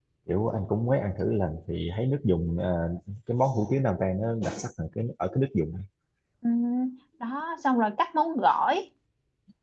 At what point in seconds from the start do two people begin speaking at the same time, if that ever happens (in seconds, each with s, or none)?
none